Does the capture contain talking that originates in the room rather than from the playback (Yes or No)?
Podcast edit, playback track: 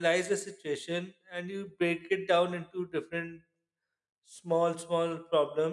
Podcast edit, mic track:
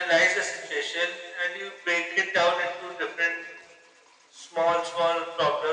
No